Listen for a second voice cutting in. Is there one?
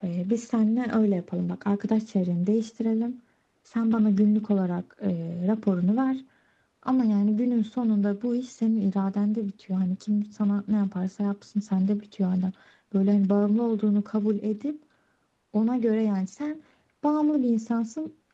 No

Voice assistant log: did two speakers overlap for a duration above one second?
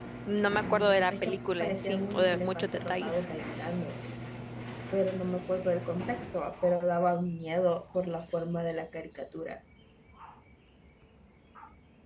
Yes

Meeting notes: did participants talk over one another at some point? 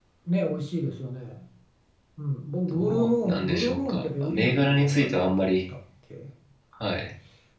Yes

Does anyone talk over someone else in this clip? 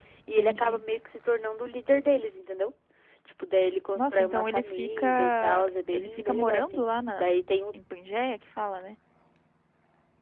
Yes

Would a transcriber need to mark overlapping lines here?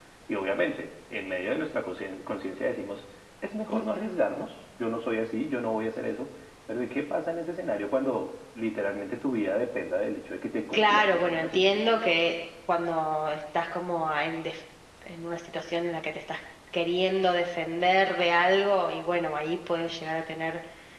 Yes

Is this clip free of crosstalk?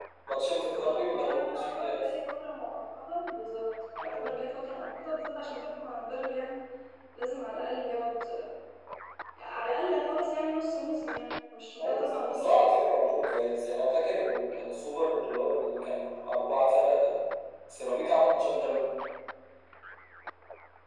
No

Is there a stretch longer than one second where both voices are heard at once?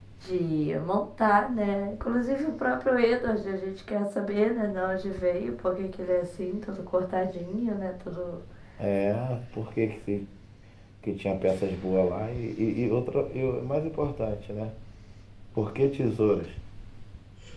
No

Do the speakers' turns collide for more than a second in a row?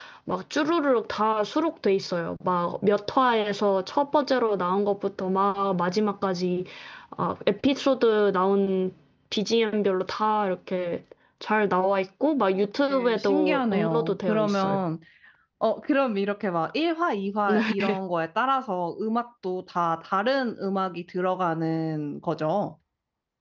Yes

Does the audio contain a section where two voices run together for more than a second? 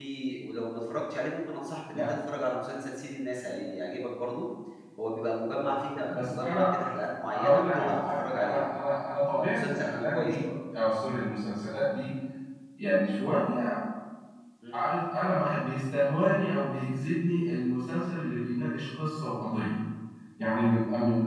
Yes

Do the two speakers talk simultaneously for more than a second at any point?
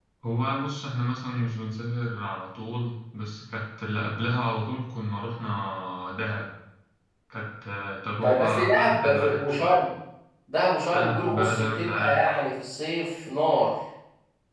Yes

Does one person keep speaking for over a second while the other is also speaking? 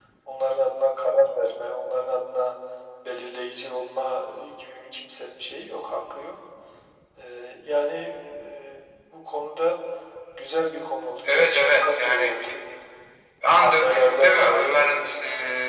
Yes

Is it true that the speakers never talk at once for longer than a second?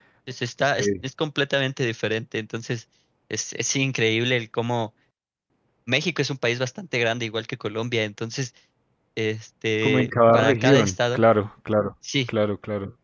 No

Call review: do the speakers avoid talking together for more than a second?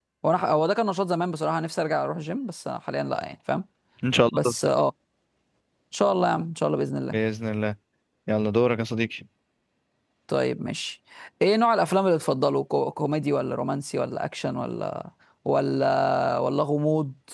Yes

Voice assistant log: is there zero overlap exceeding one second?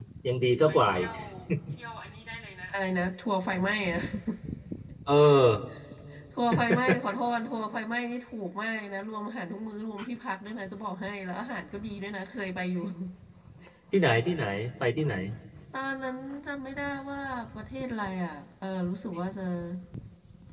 Yes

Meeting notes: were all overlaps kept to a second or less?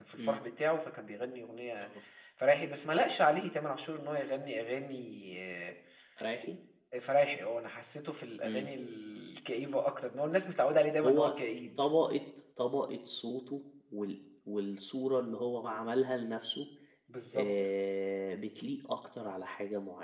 Yes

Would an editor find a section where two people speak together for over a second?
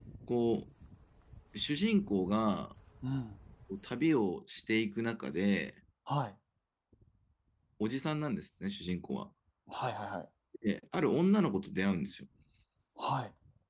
No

